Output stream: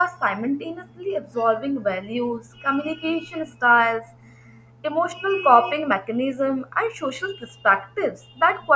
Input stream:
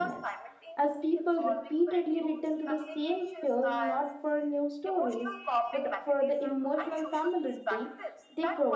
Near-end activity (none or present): present